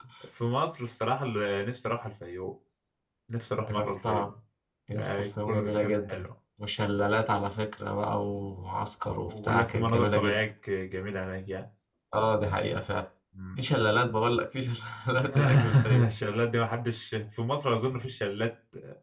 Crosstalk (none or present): present